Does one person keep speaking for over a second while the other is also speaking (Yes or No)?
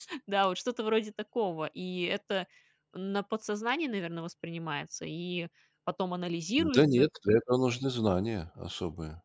No